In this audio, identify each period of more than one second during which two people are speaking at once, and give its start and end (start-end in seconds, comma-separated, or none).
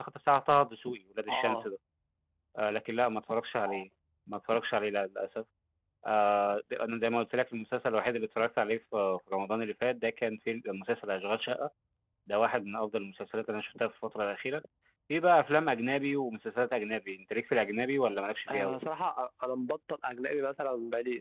none